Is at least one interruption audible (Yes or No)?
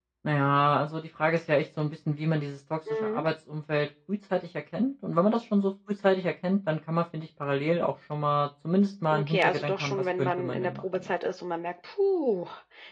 Yes